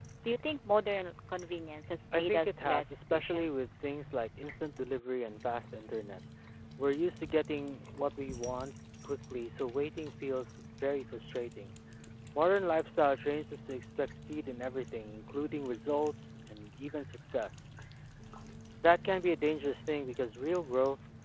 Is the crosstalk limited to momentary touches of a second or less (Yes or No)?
No